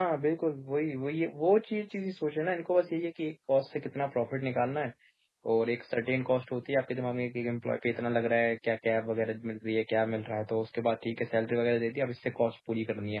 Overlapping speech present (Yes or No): No